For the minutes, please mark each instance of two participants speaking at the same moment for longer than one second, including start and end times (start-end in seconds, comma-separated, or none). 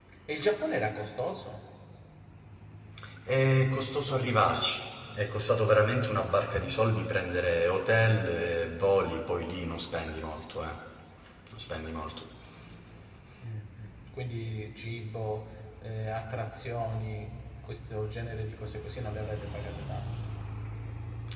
none